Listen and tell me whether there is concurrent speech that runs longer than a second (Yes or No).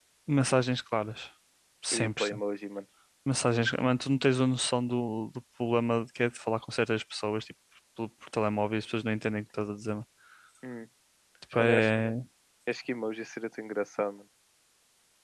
No